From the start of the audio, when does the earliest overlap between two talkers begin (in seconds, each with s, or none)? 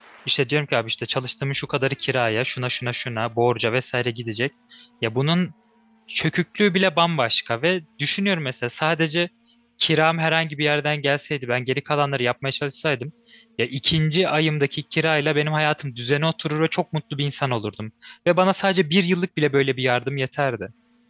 none